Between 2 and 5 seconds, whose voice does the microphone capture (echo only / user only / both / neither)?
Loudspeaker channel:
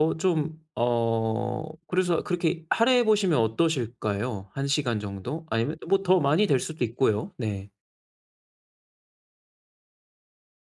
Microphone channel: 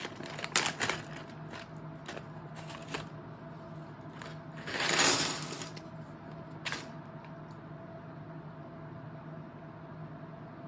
neither